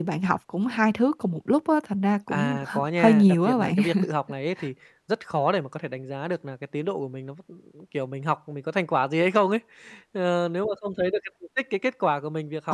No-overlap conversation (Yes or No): No